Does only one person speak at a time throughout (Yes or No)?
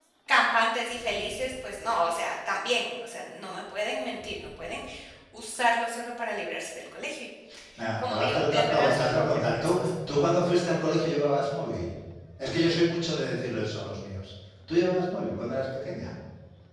No